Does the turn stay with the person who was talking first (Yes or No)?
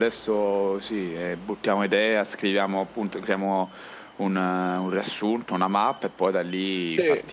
No